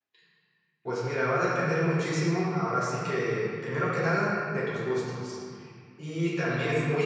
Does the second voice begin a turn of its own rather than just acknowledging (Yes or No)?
No